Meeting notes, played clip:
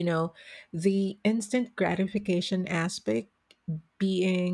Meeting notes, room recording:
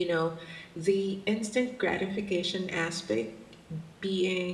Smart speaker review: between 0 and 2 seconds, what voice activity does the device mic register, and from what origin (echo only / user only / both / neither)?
echo only